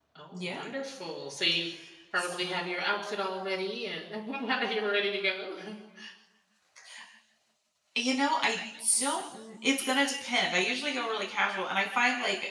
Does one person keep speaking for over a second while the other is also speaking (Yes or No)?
No